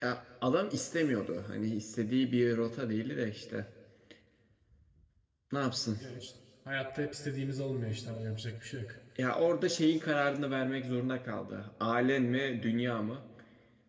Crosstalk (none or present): none